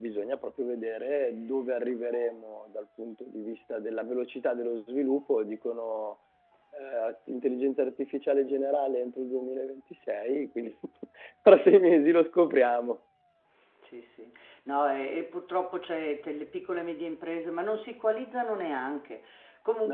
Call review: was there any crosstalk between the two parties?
No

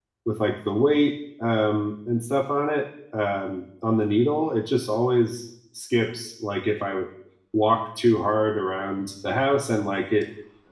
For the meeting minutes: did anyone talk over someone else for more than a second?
No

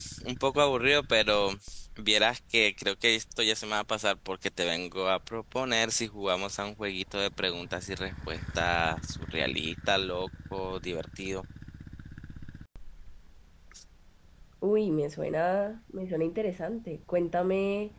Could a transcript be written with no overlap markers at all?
Yes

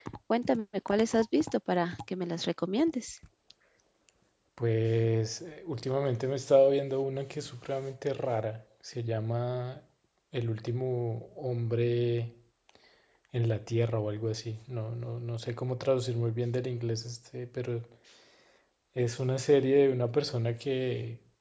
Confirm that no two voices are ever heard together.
Yes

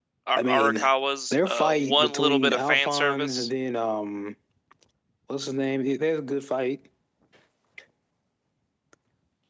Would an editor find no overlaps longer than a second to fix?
No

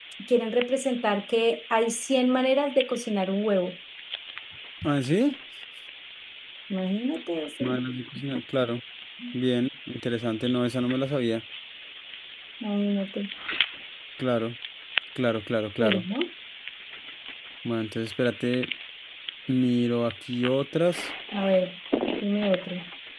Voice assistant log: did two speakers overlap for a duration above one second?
No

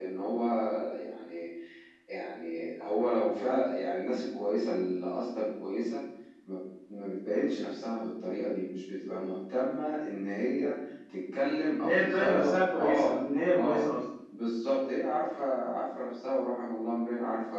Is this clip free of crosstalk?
No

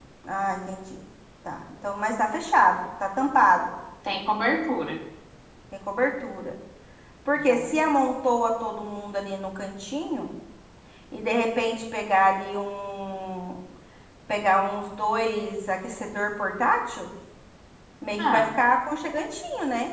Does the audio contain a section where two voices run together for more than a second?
No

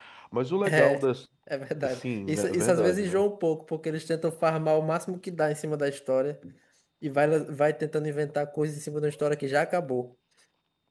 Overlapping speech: Yes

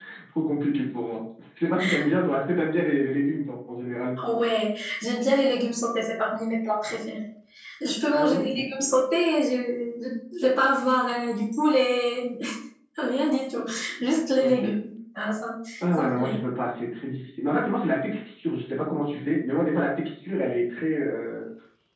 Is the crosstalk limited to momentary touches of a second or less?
Yes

